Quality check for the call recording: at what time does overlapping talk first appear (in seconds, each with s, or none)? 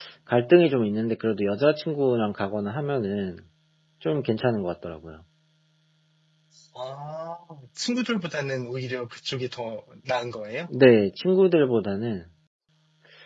none